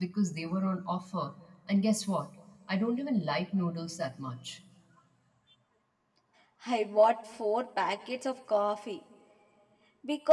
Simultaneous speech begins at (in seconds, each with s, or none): none